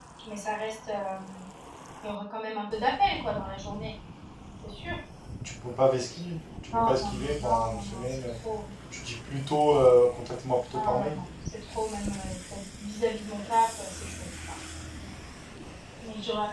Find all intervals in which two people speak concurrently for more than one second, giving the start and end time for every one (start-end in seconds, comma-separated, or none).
6.7-8.4